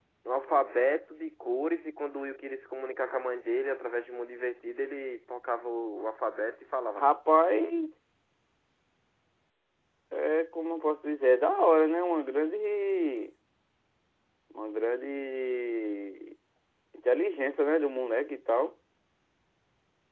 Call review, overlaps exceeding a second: none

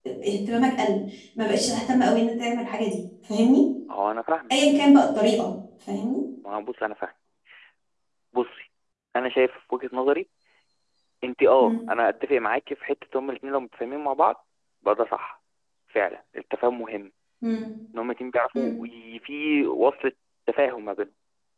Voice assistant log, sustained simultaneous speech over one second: none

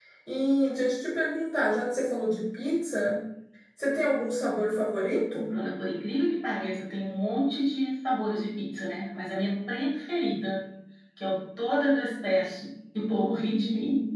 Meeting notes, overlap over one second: none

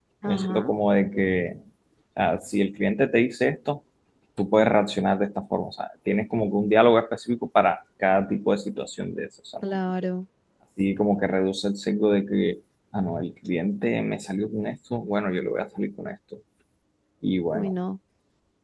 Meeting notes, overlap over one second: none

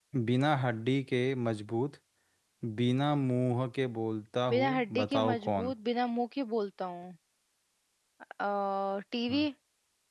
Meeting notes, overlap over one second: present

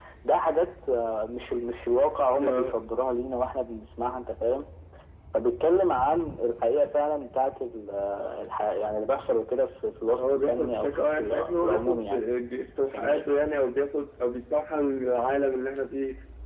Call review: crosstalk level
present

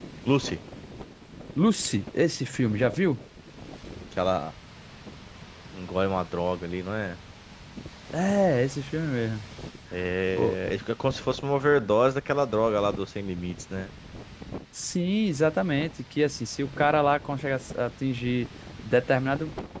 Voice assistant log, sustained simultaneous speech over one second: none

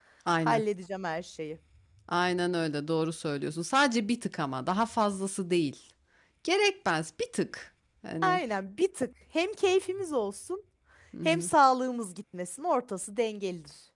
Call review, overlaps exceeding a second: none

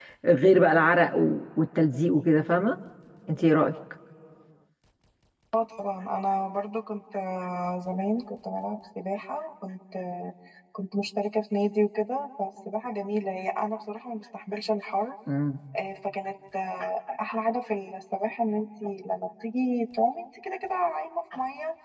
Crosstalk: none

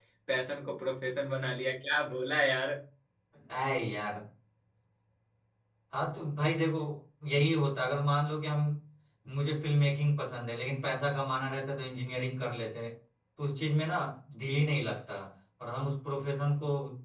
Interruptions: none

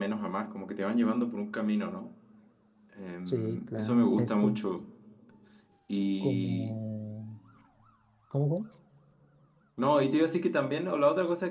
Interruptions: present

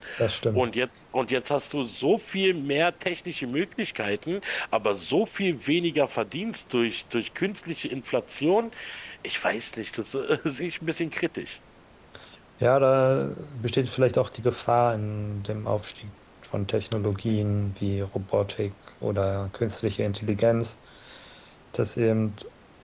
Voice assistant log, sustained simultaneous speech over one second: none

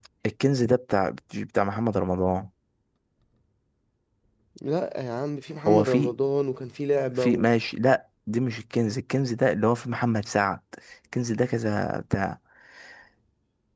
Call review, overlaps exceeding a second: none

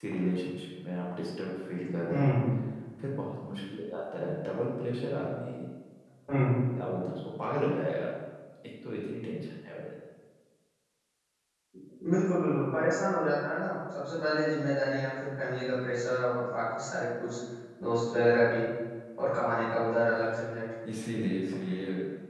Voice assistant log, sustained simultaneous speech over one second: none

